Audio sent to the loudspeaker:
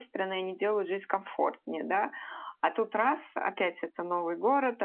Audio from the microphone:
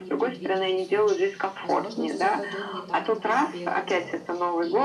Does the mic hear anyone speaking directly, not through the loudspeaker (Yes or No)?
Yes